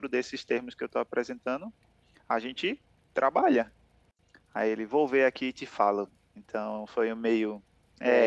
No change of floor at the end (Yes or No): No